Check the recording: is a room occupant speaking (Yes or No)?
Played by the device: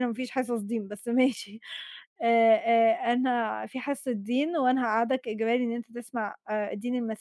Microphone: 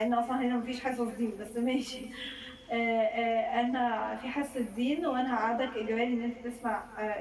No